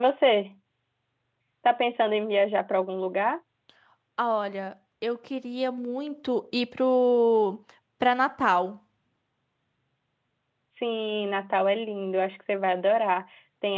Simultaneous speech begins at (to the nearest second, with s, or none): none